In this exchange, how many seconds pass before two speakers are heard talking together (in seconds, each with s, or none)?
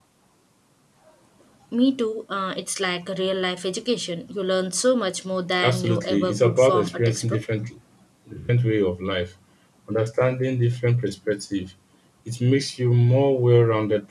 5.6 s